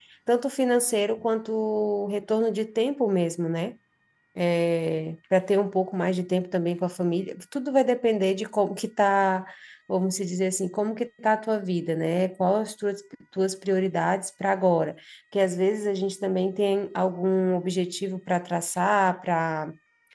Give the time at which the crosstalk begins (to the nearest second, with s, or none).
none